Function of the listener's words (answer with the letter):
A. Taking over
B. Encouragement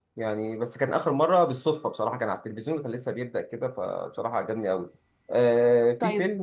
A